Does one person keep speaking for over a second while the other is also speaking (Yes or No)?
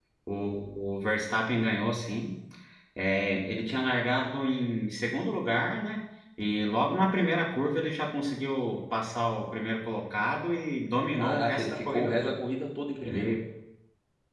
Yes